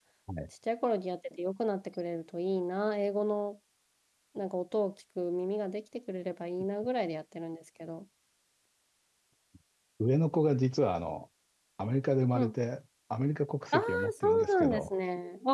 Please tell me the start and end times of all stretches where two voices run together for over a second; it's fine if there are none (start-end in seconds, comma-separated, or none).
13.7-14.9